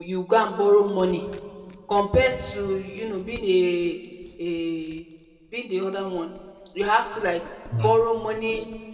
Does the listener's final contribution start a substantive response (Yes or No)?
No